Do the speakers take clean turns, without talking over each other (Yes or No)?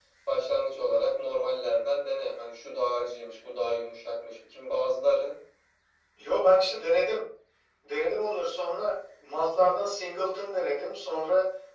Yes